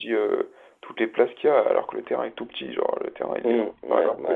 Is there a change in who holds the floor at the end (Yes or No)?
Yes